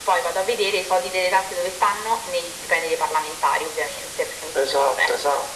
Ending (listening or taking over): taking over